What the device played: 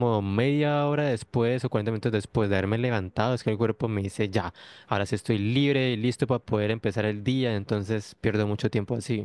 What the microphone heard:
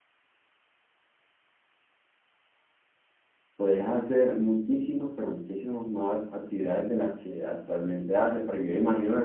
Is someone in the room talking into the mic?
Yes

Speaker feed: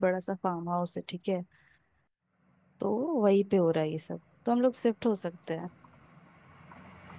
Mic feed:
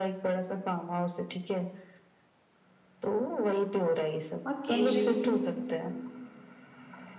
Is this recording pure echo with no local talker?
No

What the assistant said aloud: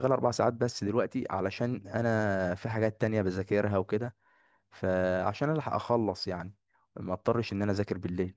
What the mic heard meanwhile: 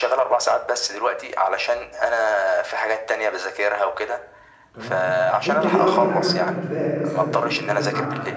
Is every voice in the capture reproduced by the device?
No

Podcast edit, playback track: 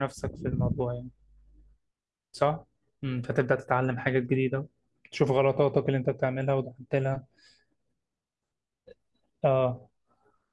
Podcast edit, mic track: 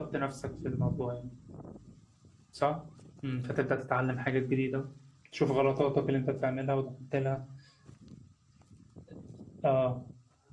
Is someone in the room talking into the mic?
No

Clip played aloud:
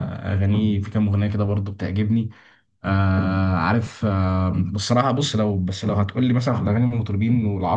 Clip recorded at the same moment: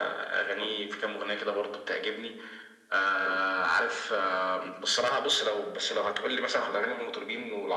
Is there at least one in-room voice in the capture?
No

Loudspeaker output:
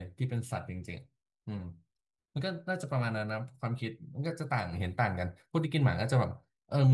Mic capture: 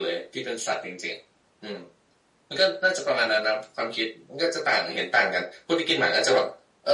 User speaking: No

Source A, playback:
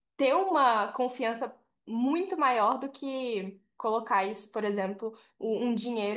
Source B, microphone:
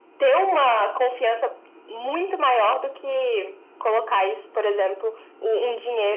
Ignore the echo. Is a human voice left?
No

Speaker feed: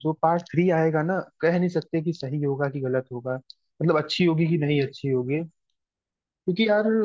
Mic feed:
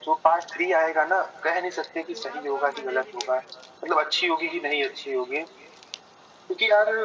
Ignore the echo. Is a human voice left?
Yes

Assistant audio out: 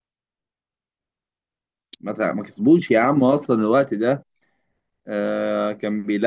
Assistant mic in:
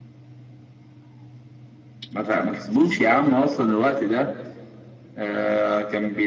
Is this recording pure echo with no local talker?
Yes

